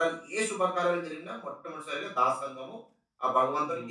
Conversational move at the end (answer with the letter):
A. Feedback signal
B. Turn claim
B